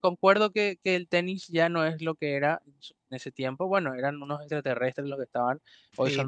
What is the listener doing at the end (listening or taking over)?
listening